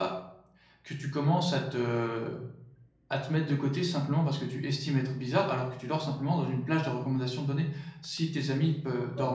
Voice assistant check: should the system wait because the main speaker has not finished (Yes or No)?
Yes